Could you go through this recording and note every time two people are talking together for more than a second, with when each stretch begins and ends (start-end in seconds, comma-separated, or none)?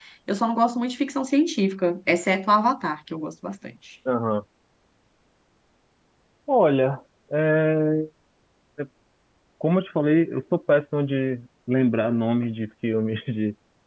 none